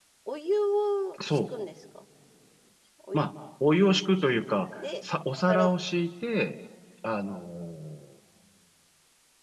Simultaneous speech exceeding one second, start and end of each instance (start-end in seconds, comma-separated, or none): none